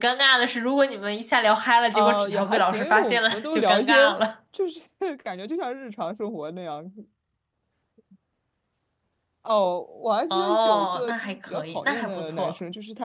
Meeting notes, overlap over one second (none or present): present